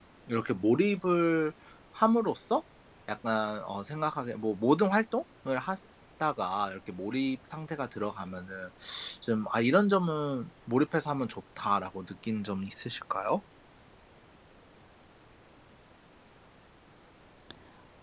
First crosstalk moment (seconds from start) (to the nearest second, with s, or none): none